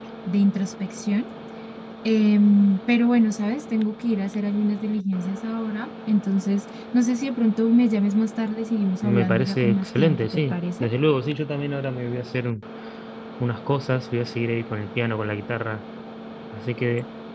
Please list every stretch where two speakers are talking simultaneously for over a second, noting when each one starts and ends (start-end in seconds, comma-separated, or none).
9.0-10.9